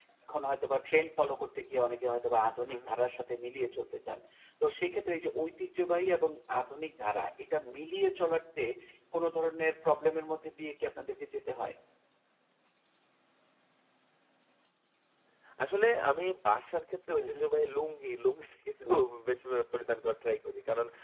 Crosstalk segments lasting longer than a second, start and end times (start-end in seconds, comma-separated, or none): none